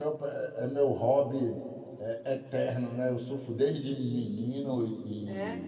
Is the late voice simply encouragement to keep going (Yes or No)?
Yes